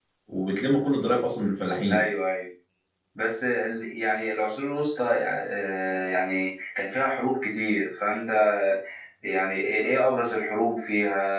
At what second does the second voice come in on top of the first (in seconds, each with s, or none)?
none